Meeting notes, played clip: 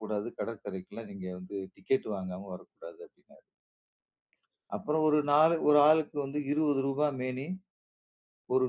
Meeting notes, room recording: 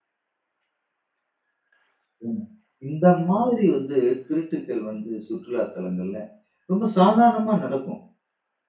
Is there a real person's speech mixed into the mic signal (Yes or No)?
Yes